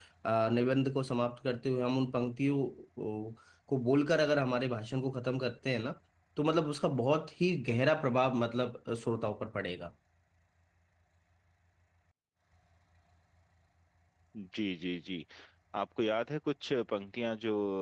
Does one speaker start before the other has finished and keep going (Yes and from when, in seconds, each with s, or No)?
No